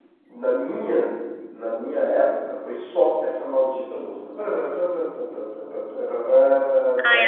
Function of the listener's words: taking over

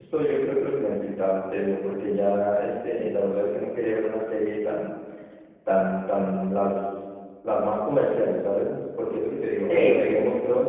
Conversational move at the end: listening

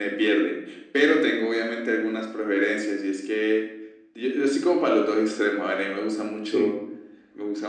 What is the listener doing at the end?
listening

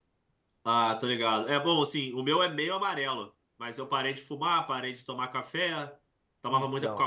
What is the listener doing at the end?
listening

